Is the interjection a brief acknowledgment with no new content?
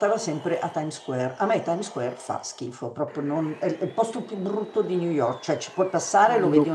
Yes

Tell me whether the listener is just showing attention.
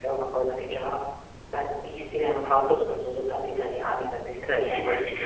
No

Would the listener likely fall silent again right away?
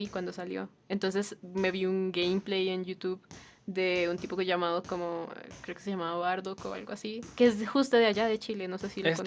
No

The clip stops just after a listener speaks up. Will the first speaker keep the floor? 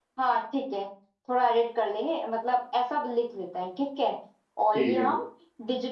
Yes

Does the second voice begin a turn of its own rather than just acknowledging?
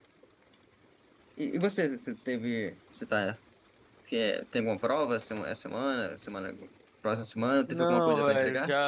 Yes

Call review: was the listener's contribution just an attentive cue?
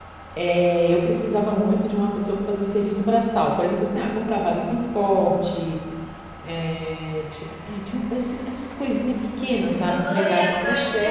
No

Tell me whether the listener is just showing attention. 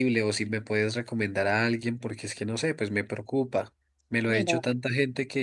Yes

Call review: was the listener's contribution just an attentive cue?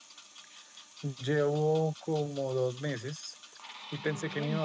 Yes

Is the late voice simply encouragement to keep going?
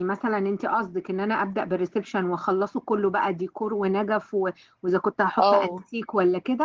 Yes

